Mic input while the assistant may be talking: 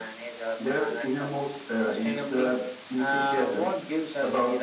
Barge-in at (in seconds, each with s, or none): none